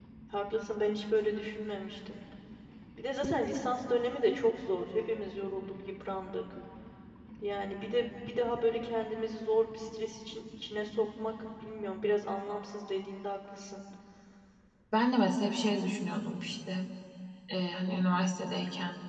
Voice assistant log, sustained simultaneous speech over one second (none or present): none